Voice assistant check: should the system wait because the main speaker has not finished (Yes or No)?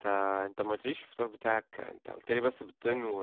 No